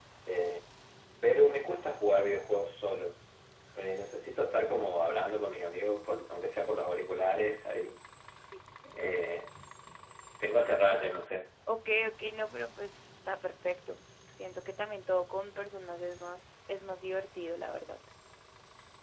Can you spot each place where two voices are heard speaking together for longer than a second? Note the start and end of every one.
none

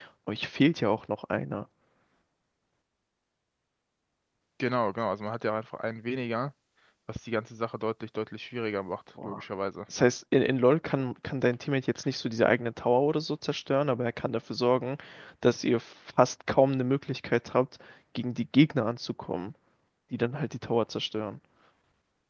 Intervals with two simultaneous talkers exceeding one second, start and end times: none

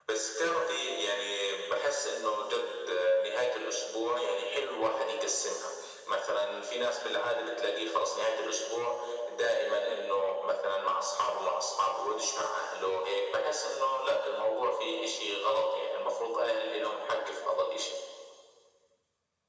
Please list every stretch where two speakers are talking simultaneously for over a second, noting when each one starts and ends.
none

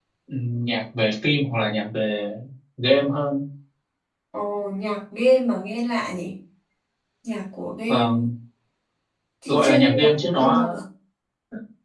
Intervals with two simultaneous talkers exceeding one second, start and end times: 9.4-10.7

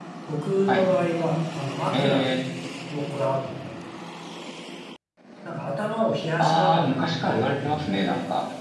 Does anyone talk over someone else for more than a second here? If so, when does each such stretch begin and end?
6.4-8.0

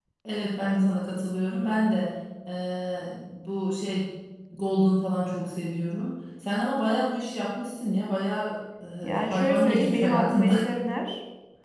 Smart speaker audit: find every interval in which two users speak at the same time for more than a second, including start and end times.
9.0-10.6

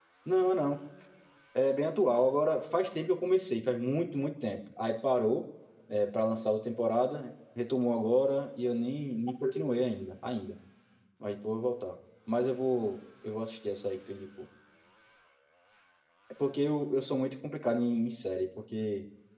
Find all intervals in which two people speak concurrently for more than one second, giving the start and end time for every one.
none

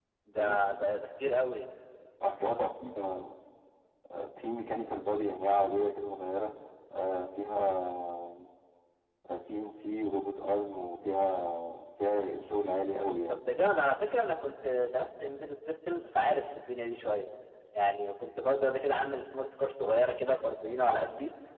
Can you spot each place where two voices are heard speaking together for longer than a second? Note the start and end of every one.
none

